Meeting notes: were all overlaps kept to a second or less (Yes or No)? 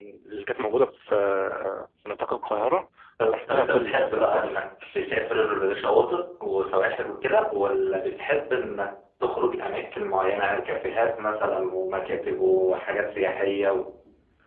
No